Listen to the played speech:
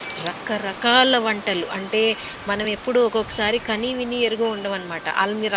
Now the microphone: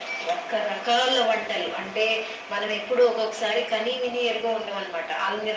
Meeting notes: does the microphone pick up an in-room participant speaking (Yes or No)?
No